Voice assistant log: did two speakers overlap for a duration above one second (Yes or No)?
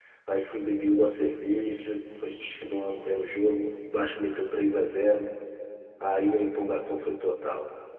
No